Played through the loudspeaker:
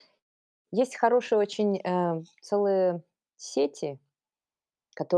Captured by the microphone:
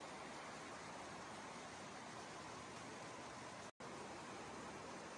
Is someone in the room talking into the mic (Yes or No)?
No